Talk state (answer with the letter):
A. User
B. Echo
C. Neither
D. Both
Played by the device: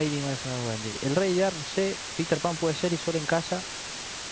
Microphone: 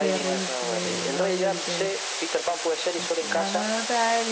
D